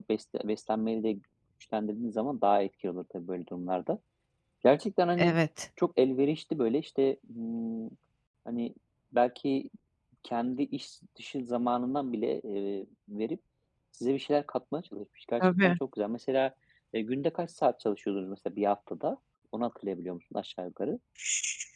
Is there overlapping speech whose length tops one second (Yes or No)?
No